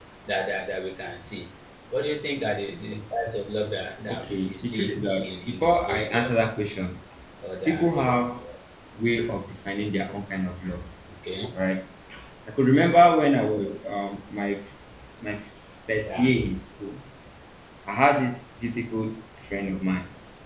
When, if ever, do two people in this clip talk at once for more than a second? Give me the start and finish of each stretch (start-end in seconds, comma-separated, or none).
4.1-6.3